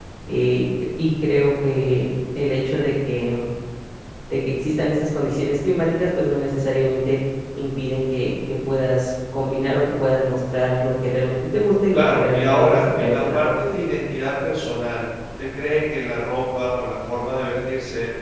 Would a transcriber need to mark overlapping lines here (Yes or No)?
Yes